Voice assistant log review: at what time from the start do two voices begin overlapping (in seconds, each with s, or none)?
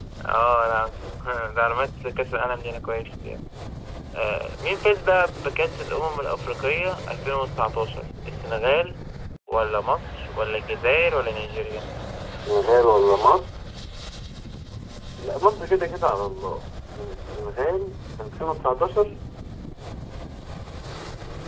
none